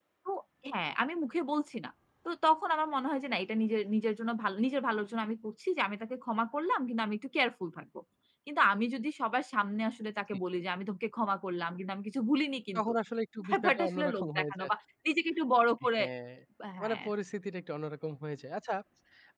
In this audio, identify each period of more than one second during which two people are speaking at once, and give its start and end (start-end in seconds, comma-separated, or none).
13.5-14.7